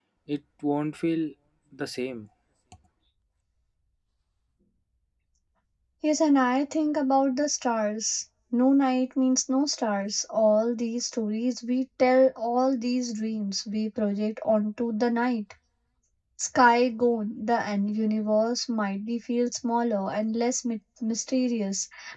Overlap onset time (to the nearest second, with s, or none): none